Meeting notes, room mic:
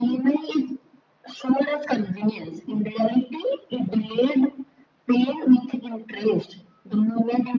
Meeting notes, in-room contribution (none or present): none